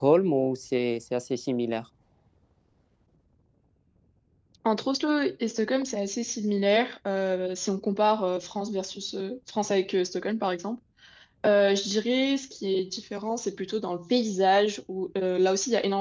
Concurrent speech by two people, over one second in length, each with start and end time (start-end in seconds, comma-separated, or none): none